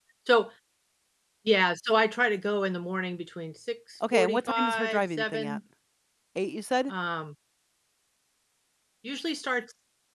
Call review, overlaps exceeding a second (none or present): present